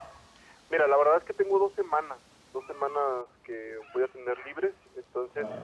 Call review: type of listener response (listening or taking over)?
listening